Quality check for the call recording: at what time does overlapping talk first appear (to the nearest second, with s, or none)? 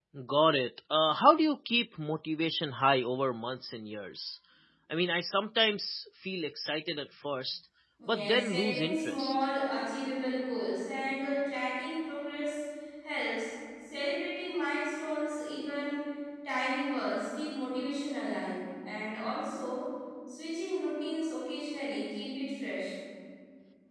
8 s